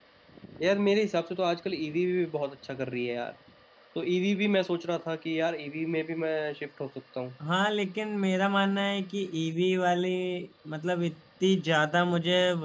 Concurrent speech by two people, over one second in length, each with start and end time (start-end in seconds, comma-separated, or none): none